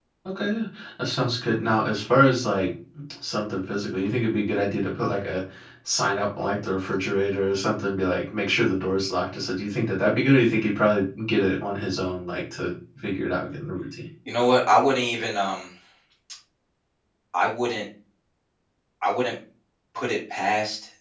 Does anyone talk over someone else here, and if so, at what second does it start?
none

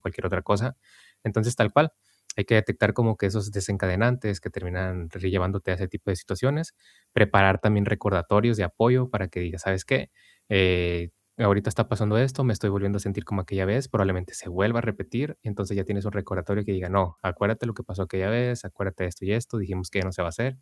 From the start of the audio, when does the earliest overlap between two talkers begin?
none

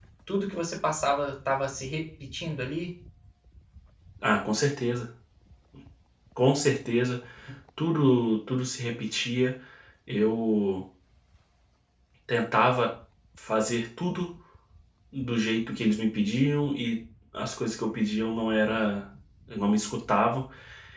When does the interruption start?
none

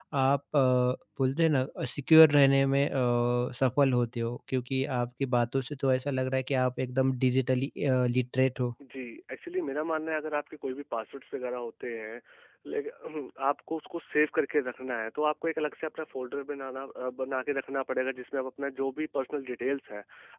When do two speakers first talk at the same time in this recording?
none

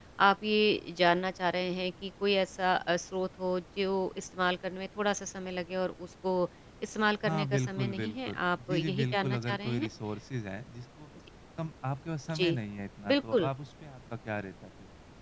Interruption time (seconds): 7.2 s

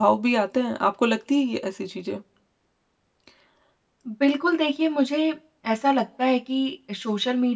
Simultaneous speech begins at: none

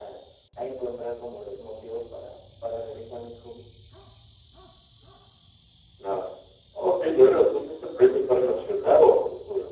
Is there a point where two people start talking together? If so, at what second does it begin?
none

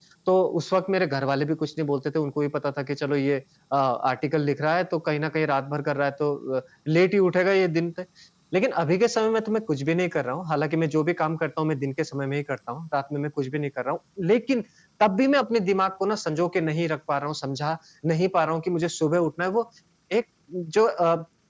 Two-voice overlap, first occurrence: none

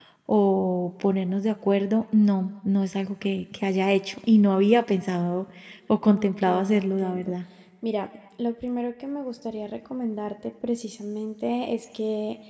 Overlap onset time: 6.1 s

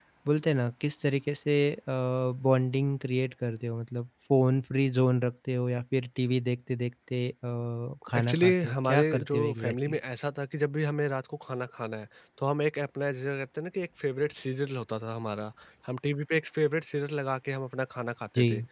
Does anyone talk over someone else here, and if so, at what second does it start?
8.0 s

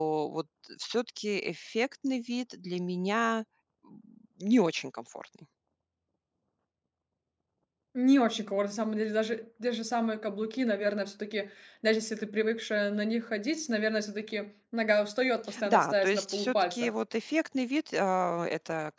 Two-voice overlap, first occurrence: 15.4 s

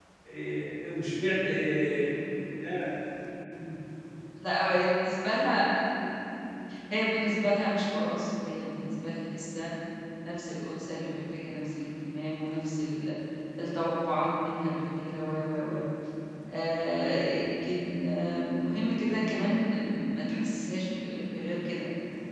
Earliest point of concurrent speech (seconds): none

